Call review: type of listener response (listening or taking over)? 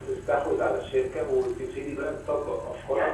taking over